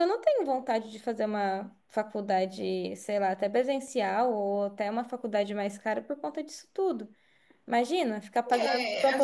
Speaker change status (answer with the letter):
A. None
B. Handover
B